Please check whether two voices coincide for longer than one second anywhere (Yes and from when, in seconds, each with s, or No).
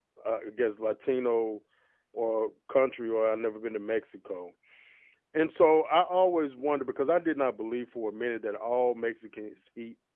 No